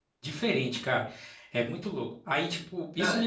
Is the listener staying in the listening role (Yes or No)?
Yes